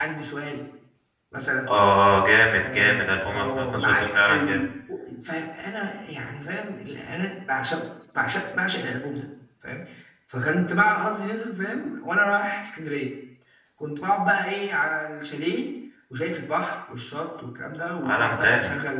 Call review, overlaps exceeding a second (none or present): present